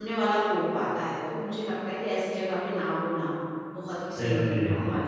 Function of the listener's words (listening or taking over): taking over